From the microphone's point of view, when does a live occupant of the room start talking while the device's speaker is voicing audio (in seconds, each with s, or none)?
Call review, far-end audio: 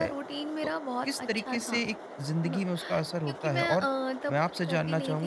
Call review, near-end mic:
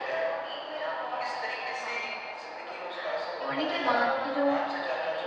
3.4 s